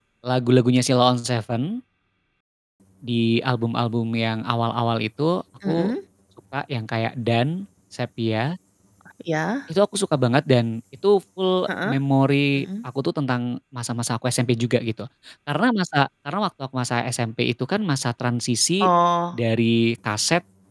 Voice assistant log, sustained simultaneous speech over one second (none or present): none